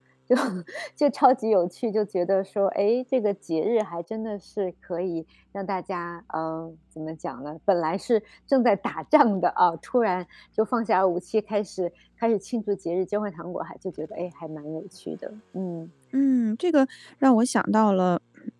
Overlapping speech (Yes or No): No